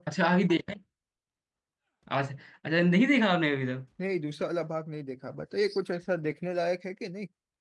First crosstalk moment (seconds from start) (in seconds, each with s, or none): none